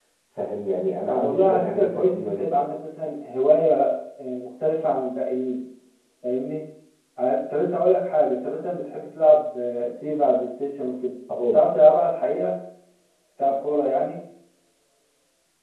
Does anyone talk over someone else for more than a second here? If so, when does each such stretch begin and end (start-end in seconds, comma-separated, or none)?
1.1-2.6